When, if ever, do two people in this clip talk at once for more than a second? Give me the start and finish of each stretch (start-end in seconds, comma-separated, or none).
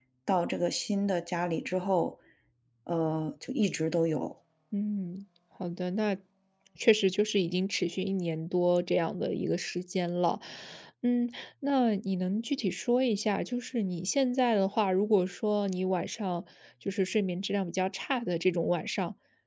none